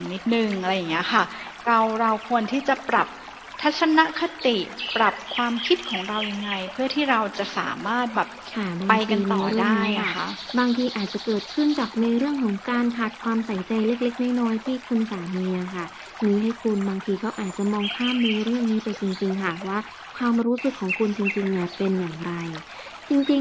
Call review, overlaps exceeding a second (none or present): present